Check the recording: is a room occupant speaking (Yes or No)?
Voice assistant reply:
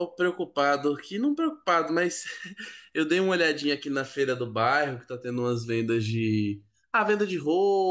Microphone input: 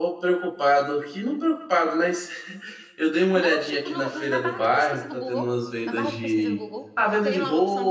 Yes